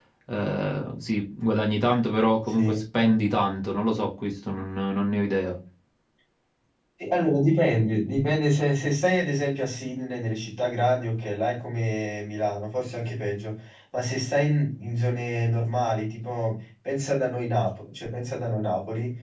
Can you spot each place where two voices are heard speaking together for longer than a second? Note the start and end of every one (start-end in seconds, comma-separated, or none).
none